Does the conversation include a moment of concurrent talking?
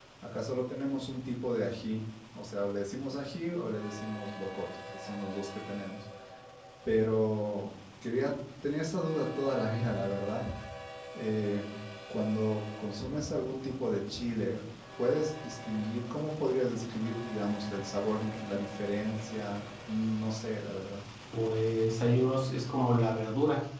No

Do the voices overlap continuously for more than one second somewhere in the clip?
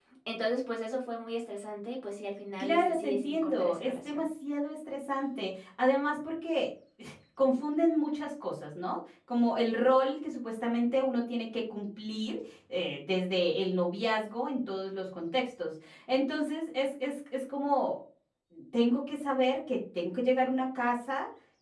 Yes, from 2.6 s

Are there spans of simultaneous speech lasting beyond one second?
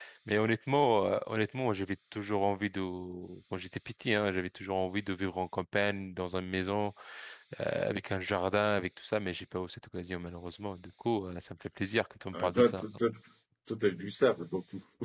No

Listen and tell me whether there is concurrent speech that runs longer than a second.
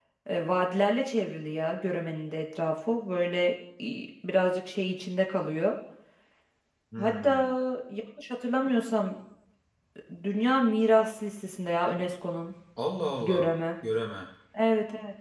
No

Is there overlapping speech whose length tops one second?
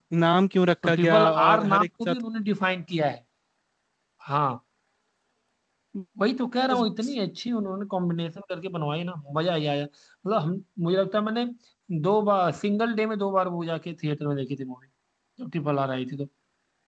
Yes, from 0.8 s

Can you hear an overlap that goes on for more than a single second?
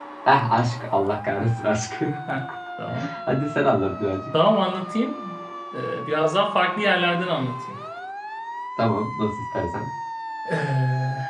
No

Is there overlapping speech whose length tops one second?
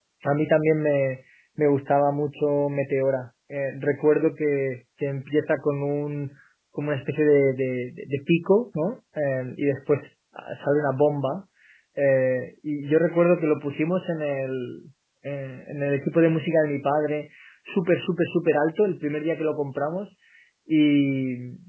No

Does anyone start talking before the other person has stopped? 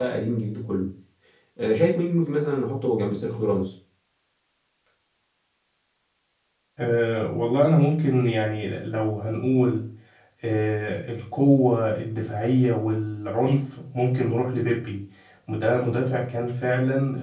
No

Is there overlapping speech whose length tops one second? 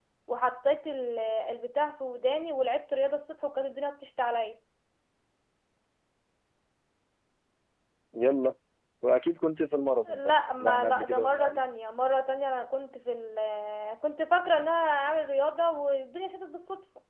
Yes, from 10.1 s

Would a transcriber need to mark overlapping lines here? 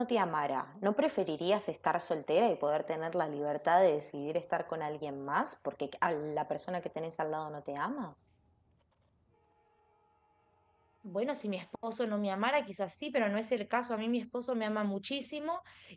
No

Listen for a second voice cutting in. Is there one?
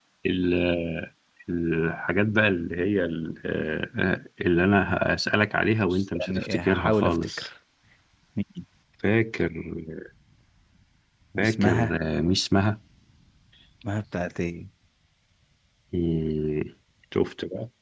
Yes, from 5.9 s

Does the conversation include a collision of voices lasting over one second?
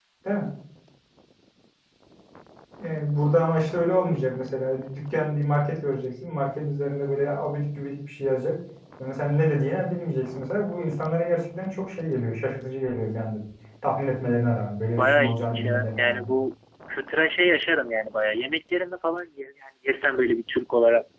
Yes, from 15.0 s

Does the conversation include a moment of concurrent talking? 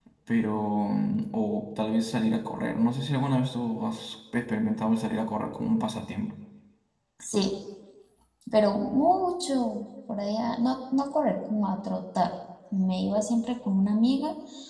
No

